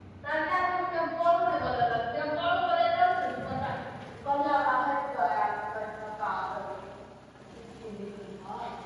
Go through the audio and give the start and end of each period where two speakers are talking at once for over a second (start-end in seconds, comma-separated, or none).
none